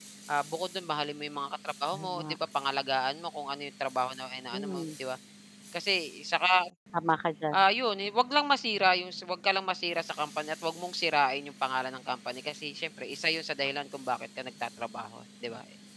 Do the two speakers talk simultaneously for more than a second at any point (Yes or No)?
No